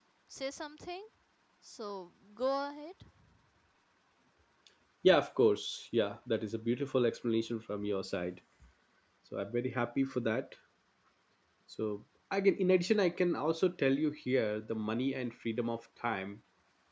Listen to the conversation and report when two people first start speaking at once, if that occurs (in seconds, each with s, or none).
none